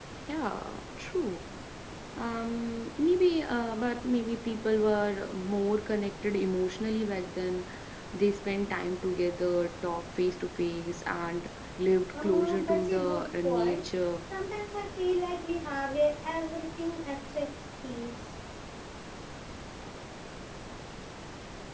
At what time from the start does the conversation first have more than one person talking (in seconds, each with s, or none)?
12.1 s